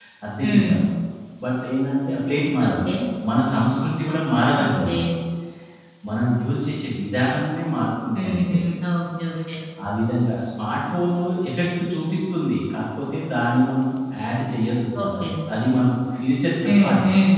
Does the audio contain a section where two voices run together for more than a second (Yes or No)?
No